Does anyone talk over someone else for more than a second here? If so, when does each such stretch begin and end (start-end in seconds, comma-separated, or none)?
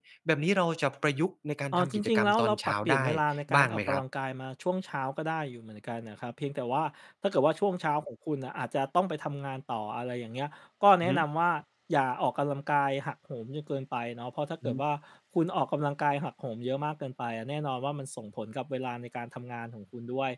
1.7-3.0